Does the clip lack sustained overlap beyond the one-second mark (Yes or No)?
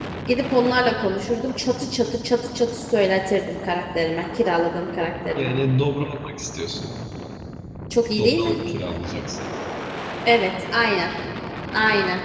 Yes